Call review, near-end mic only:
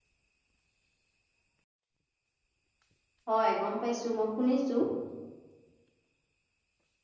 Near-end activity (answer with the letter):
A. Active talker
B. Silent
A